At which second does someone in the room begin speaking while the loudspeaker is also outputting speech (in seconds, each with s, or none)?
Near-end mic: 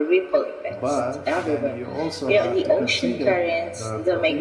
0.8 s